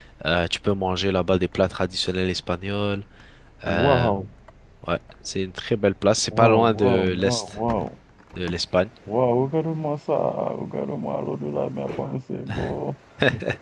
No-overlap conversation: No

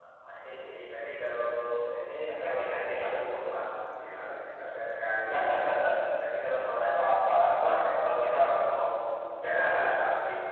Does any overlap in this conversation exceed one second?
Yes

